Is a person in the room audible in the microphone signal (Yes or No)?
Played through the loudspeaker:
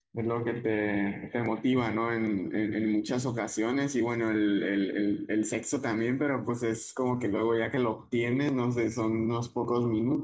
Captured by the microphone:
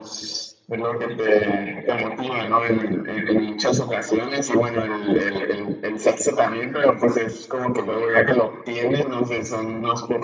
No